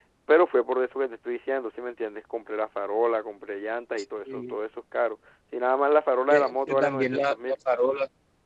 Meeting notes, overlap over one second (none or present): present